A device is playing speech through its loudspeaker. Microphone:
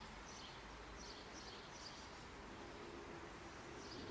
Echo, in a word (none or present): none